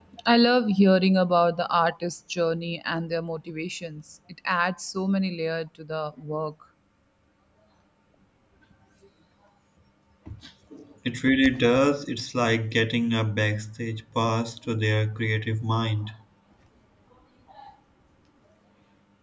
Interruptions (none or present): none